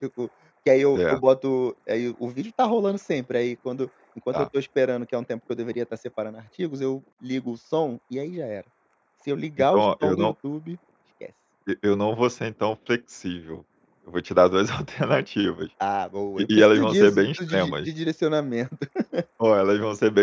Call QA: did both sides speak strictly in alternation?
No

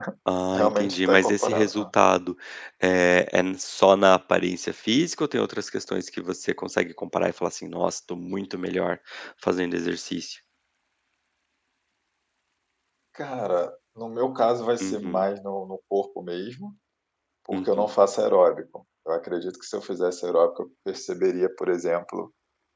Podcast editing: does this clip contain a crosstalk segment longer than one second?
Yes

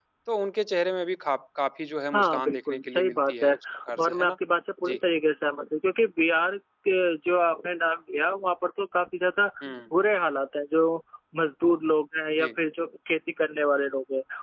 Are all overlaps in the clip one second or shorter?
No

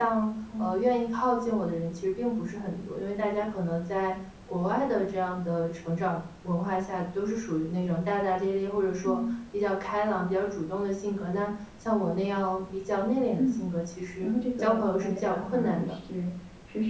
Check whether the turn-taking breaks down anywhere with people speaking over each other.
Yes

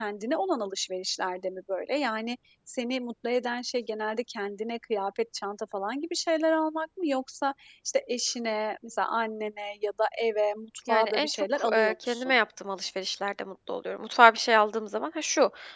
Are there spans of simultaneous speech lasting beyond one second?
Yes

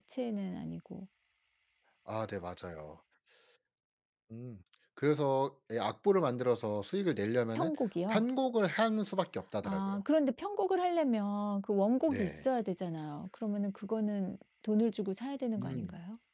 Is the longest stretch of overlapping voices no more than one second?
Yes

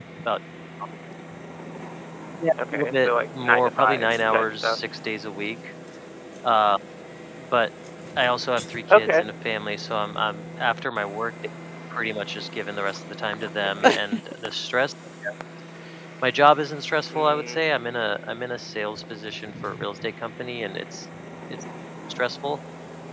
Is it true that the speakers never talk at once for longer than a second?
No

